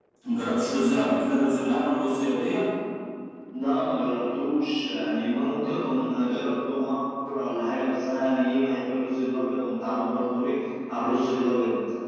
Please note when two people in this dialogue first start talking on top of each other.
none

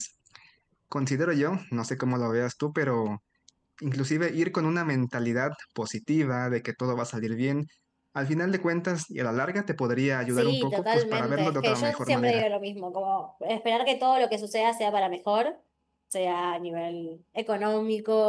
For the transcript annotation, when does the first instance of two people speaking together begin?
10.3 s

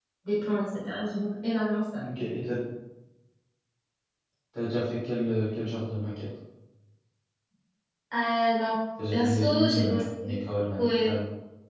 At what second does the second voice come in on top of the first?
9.1 s

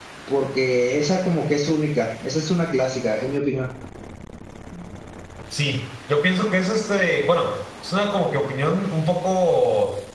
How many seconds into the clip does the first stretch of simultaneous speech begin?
none

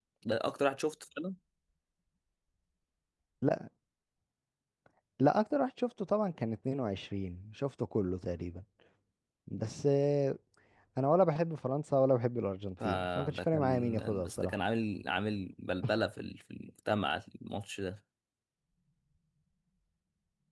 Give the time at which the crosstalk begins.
12.8 s

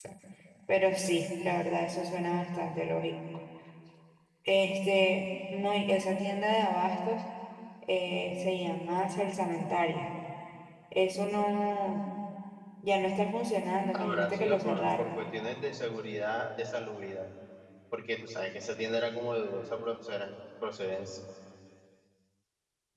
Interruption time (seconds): 13.9 s

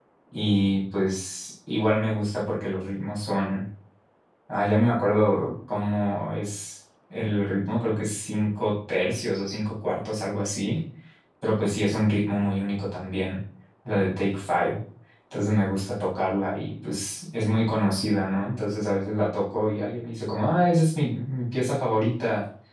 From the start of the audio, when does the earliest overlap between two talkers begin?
none

